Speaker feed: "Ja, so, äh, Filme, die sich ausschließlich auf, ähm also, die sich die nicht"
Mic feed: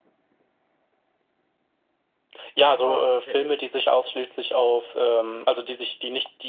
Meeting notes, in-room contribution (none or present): present